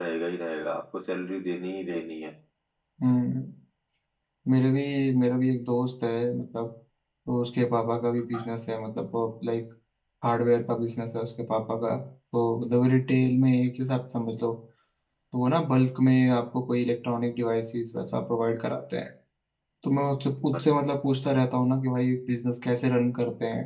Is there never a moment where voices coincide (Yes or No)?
Yes